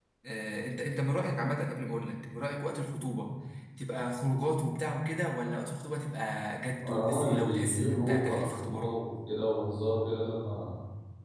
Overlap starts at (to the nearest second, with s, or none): 7 s